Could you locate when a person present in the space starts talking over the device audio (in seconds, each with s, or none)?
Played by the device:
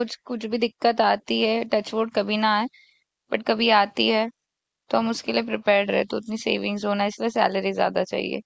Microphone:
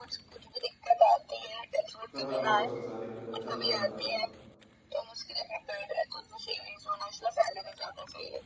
2.1 s